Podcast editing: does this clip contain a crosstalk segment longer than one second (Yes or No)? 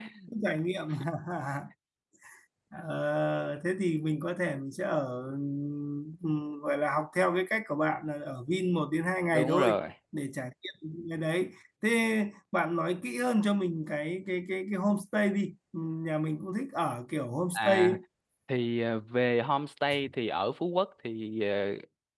No